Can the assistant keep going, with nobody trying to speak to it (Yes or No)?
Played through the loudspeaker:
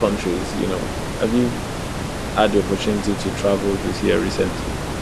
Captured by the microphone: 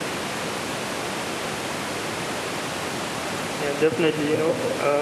No